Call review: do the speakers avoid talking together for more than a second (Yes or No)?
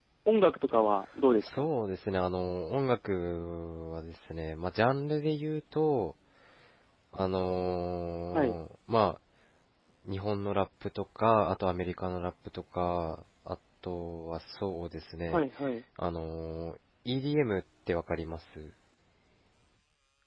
Yes